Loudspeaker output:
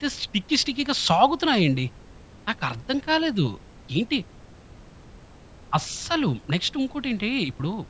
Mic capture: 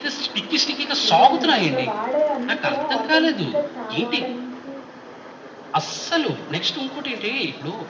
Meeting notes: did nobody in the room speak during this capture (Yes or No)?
No